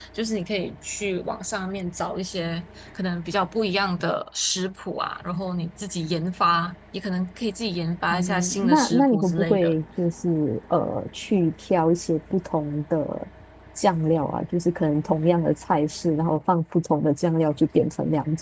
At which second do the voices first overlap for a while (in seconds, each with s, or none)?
8.1 s